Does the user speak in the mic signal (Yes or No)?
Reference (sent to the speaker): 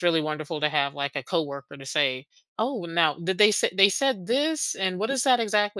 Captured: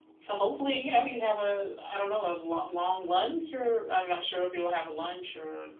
Yes